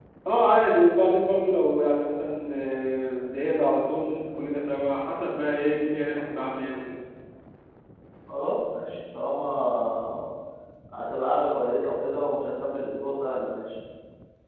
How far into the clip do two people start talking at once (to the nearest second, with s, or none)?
none